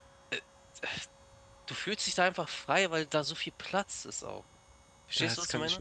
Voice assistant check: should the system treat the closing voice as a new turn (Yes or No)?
Yes